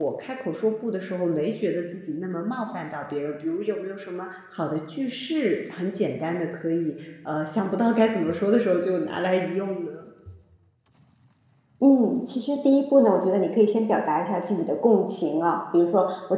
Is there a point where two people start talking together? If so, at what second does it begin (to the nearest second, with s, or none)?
none